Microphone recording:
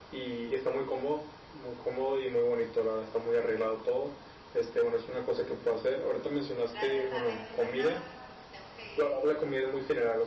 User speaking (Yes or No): Yes